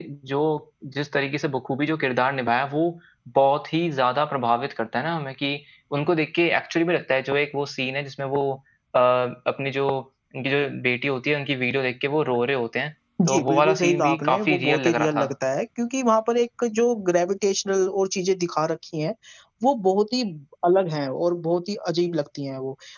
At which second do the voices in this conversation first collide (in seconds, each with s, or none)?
13.2 s